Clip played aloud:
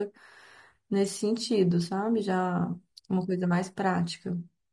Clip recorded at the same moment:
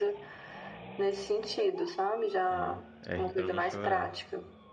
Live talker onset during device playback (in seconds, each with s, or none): 2.4 s